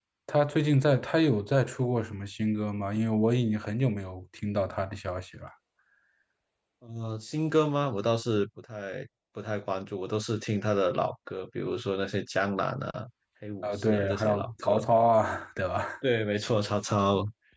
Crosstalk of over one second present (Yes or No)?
Yes